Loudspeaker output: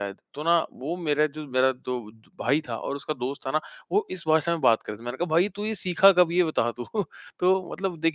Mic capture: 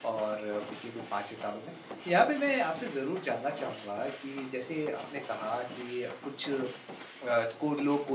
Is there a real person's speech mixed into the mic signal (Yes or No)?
Yes